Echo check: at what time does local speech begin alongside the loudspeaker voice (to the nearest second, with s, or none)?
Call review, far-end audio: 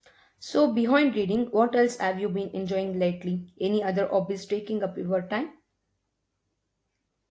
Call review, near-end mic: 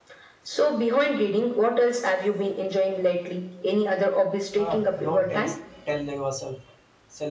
5 s